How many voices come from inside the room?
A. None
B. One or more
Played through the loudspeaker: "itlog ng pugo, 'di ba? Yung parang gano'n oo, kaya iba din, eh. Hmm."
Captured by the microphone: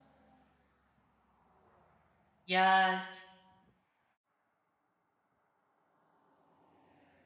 B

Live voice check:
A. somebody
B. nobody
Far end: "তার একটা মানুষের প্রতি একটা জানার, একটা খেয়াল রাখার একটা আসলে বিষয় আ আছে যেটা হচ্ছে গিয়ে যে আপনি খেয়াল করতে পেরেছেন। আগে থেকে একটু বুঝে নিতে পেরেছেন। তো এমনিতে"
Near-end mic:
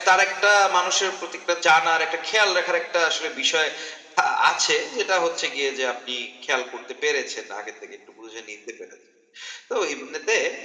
B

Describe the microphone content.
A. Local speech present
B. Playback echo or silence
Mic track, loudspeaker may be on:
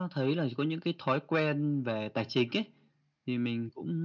B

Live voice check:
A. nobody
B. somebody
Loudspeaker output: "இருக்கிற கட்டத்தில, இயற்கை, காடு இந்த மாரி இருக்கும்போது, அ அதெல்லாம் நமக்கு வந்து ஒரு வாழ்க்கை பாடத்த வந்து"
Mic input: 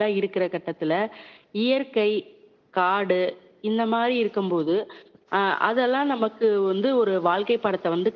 A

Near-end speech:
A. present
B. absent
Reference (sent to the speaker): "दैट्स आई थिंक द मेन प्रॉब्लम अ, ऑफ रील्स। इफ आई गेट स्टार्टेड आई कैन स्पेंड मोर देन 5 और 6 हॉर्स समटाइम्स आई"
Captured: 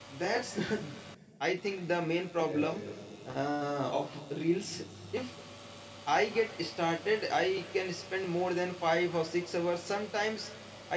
A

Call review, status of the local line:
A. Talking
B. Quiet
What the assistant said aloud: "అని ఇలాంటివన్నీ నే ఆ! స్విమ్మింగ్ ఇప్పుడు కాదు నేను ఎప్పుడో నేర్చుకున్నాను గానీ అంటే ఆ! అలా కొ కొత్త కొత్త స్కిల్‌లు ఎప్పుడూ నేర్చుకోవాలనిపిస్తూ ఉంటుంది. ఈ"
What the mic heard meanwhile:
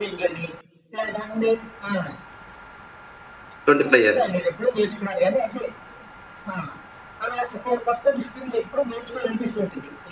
A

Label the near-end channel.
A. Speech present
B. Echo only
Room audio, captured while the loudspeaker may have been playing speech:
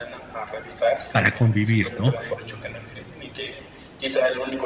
A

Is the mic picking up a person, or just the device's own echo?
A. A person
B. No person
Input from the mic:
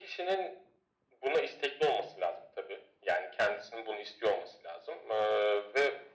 B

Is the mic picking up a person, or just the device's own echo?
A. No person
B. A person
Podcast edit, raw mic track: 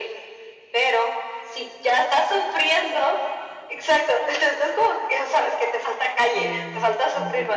B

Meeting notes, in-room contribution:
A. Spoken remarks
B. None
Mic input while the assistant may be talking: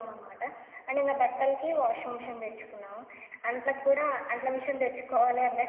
B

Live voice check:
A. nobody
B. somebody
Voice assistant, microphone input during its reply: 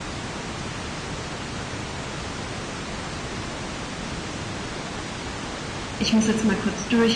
B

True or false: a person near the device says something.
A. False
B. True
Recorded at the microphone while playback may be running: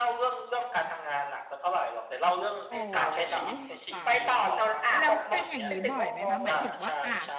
B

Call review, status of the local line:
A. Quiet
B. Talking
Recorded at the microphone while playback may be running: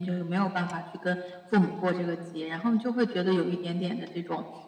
A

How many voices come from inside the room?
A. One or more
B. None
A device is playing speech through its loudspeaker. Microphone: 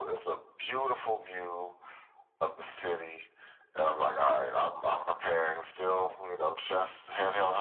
B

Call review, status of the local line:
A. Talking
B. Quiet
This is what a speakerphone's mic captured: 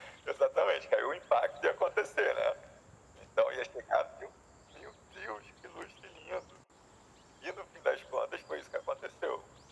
B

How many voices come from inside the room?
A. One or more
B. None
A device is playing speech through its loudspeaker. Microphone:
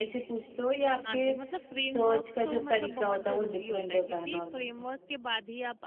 A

